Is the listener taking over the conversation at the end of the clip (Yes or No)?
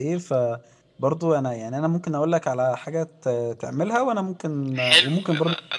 Yes